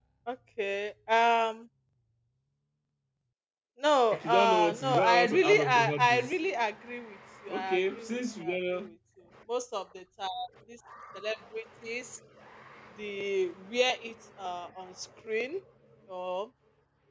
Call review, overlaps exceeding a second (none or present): present